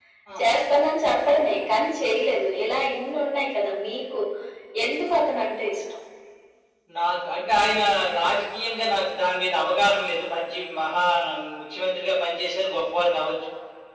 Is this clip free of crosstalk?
Yes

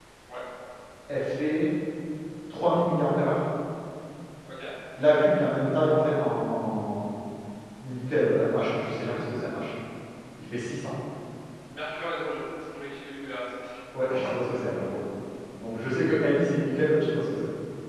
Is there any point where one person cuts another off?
No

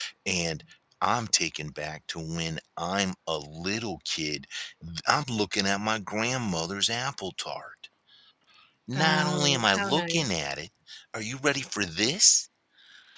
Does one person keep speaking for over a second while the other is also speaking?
Yes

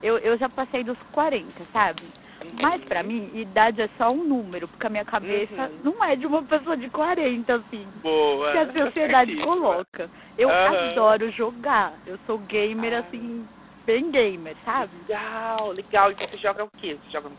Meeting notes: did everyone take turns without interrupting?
No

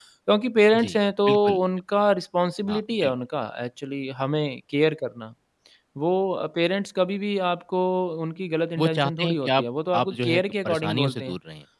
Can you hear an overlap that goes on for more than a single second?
Yes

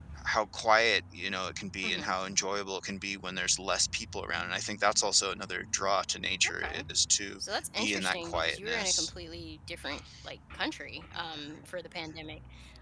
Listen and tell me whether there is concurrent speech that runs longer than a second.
Yes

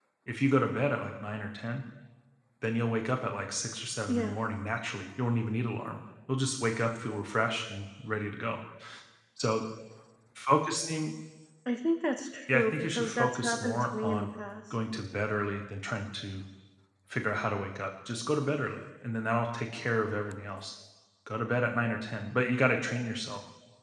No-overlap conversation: No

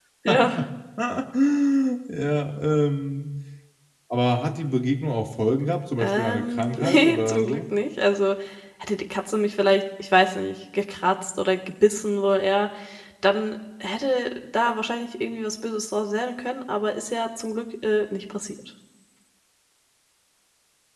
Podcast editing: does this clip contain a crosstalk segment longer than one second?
Yes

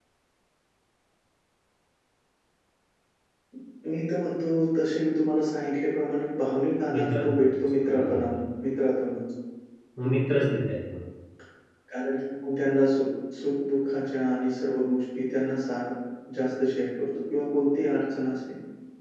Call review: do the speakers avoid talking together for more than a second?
No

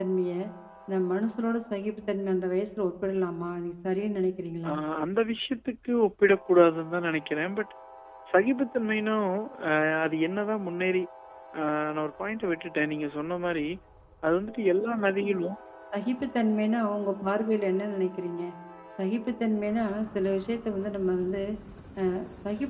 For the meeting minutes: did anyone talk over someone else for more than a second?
No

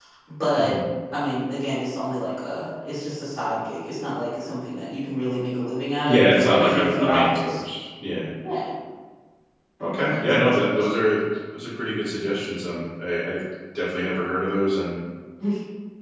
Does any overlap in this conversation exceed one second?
Yes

